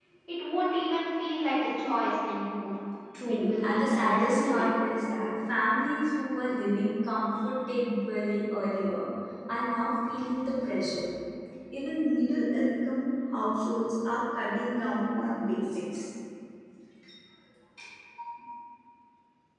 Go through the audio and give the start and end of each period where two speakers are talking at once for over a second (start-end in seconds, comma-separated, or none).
3.3-4.5